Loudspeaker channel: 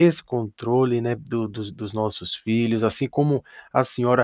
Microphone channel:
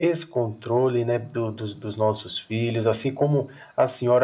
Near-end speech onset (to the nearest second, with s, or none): none